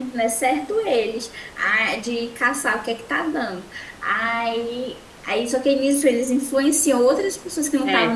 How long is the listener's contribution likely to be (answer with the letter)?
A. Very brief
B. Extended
A